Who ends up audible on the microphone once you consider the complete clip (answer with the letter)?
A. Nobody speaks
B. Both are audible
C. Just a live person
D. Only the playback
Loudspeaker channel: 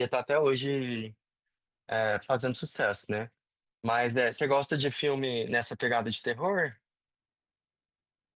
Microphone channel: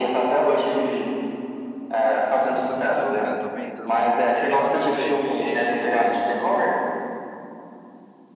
B